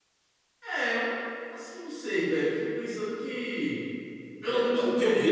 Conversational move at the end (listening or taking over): taking over